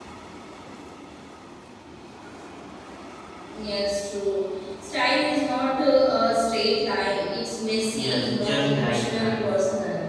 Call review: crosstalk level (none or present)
present